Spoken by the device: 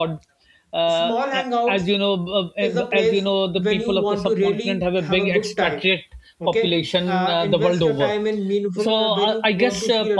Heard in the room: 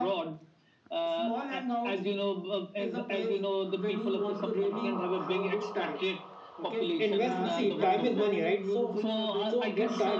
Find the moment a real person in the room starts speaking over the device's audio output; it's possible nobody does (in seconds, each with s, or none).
7.0 s